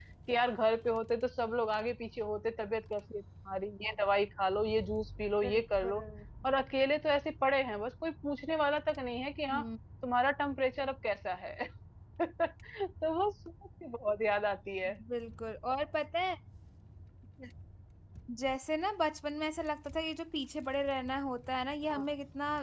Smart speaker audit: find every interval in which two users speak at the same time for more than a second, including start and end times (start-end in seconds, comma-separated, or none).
none